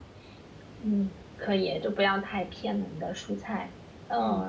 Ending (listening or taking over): listening